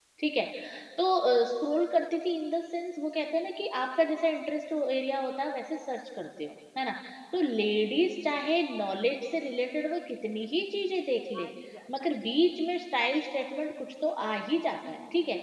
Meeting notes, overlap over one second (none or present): none